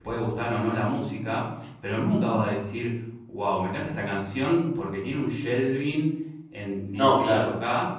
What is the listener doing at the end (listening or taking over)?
listening